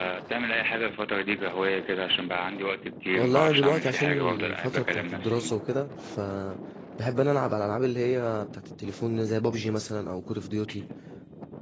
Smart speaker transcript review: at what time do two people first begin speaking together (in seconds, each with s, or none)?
3.2 s